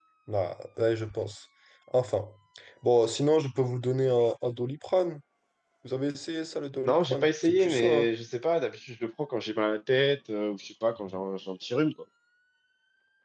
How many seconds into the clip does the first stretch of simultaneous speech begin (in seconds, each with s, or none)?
6.8 s